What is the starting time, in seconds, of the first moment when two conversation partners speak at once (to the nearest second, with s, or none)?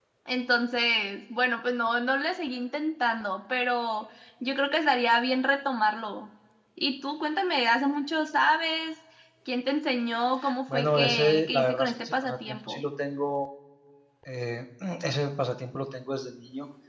11 s